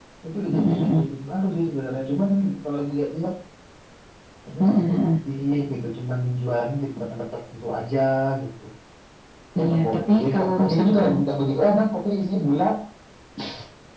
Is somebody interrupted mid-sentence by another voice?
Yes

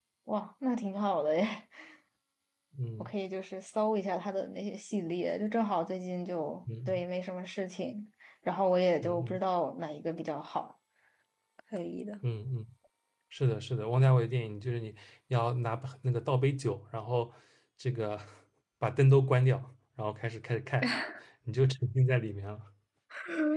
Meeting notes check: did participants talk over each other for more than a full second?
No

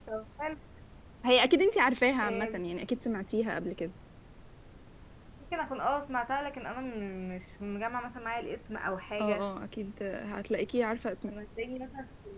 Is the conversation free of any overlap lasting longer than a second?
Yes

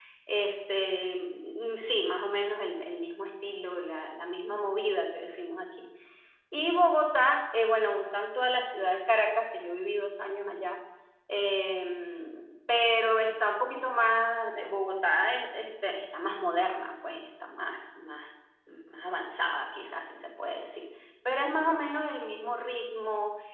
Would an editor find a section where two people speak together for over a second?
No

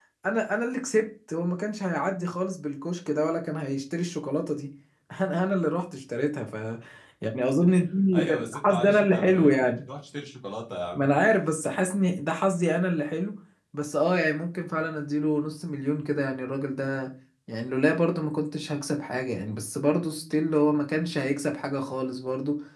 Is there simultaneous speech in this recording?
Yes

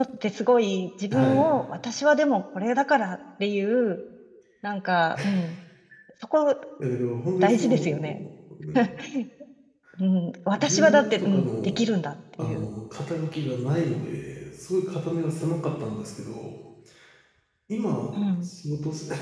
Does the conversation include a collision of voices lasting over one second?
Yes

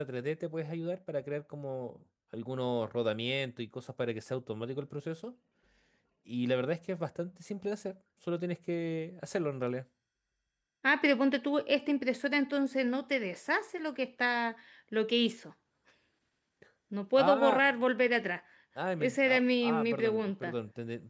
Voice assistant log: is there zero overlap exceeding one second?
No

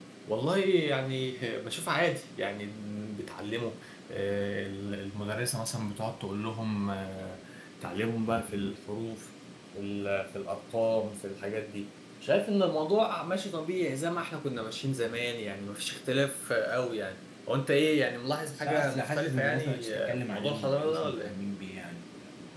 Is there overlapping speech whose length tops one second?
Yes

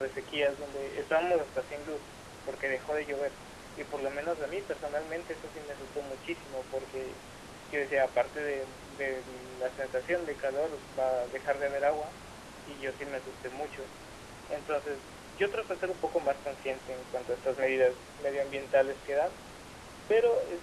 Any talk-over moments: No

